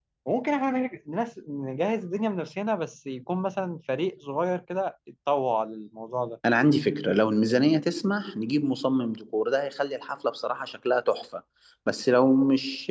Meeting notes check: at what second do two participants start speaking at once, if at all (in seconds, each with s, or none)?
none